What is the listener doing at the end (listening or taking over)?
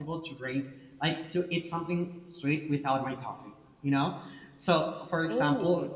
listening